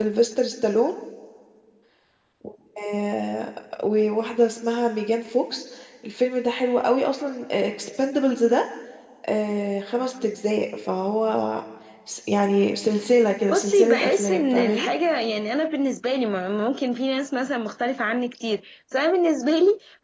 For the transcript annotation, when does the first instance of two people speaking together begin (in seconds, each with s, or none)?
13.5 s